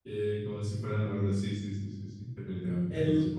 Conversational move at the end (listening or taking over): taking over